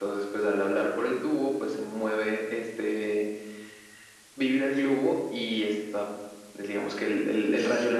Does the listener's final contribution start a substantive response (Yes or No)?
No